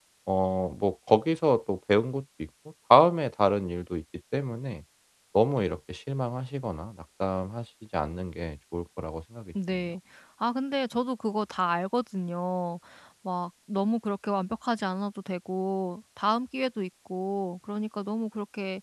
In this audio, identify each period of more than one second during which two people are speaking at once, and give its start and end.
none

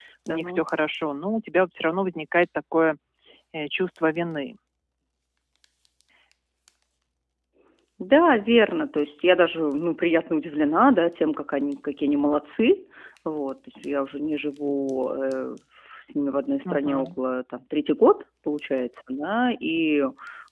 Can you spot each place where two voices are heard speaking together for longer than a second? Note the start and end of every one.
none

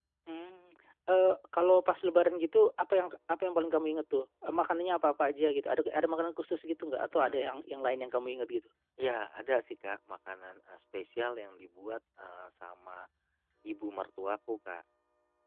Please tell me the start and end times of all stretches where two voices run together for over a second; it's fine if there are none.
none

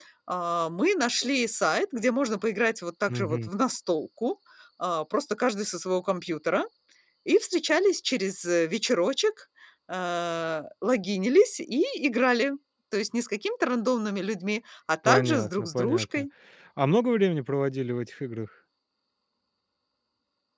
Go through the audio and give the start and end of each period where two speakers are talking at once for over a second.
15.0-16.3

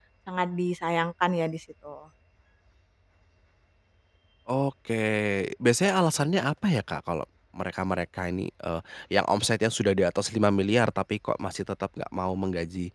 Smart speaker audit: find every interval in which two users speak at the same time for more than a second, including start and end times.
none

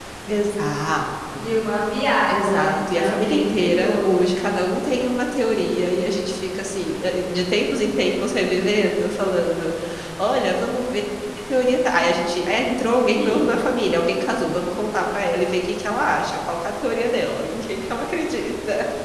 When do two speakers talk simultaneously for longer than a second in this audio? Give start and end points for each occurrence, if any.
2.3-4.3

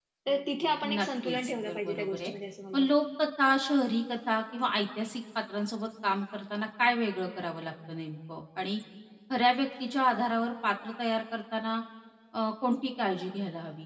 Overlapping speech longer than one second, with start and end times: 1.0-2.3

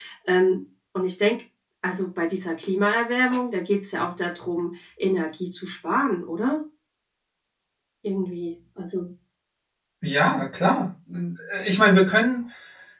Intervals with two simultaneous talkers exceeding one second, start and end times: none

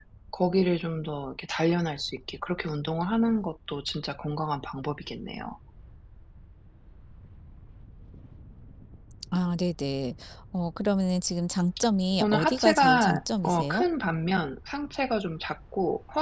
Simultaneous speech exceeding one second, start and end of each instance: 12.2-13.8

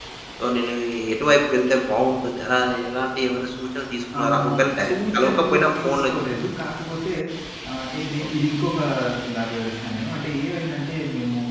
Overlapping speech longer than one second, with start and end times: 4.2-6.0

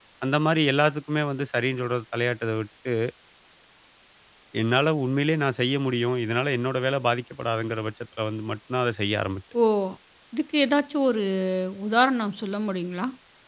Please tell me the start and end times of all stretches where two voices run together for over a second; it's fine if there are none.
none

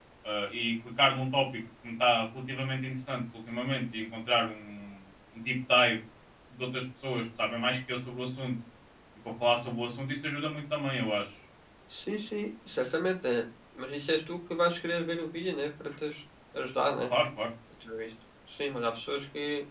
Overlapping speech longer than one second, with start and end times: none

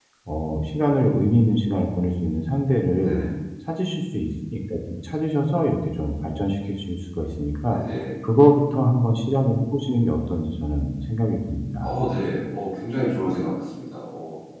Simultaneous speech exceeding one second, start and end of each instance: none

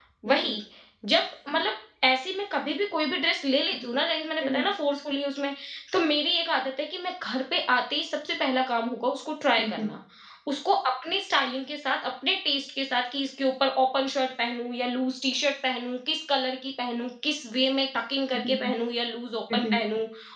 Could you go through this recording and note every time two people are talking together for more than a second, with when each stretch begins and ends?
none

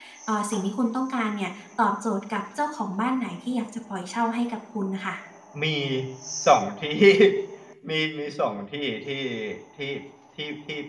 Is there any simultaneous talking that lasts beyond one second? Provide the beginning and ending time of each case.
none

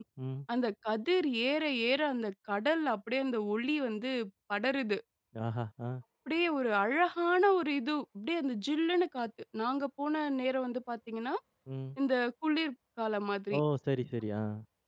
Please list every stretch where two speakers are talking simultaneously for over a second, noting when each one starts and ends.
none

